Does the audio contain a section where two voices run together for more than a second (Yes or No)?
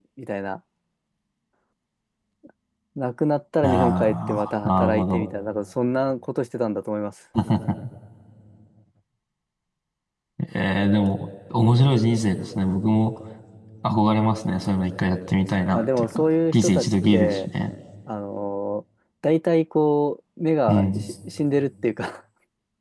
Yes